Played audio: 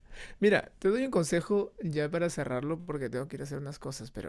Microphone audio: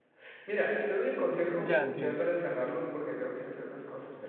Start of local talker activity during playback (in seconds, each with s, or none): 1.6 s